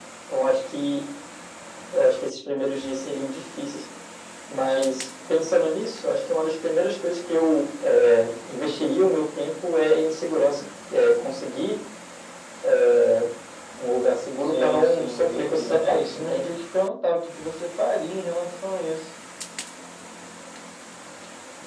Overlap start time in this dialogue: 14 s

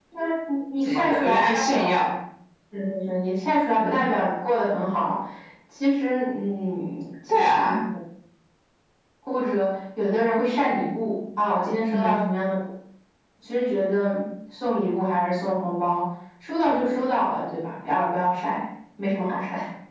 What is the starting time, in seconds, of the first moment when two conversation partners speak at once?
1 s

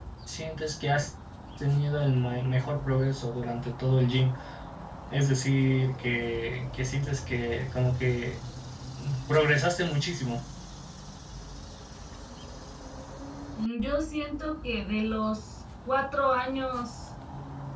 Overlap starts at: none

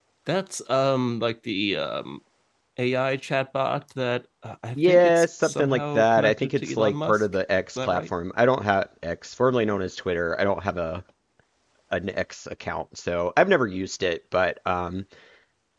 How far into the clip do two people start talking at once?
5 s

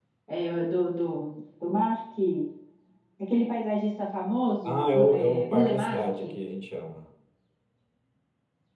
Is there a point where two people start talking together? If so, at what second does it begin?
5 s

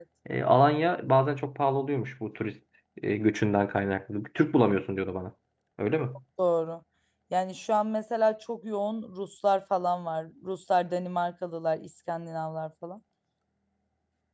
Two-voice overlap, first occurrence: none

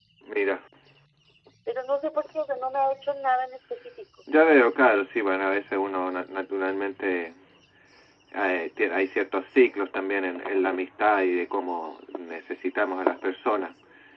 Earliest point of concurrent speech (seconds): none

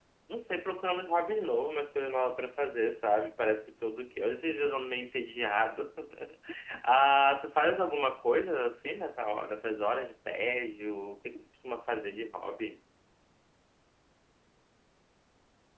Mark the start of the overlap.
none

